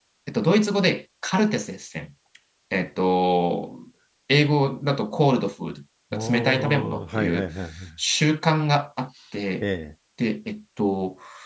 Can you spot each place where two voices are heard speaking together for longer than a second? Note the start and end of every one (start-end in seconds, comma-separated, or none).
6.1-7.5